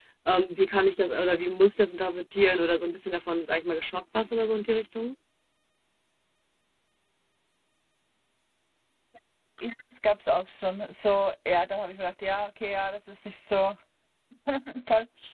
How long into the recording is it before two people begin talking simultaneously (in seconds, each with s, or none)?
none